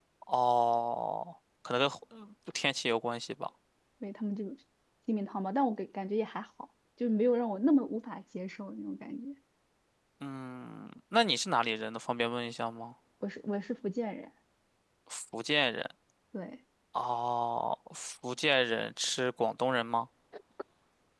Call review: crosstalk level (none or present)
none